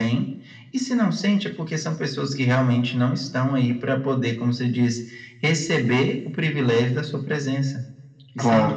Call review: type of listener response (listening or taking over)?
taking over